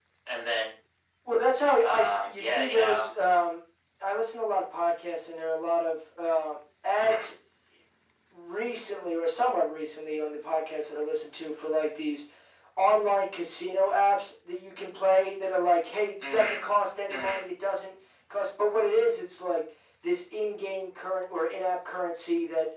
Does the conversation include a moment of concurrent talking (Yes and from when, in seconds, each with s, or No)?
Yes, from 1.8 s